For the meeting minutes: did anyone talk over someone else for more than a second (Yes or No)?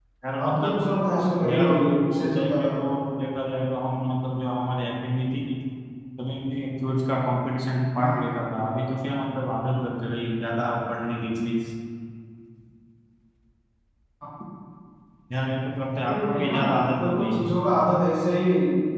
Yes